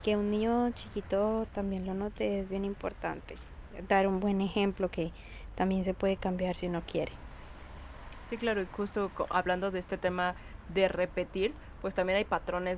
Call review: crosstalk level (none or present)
none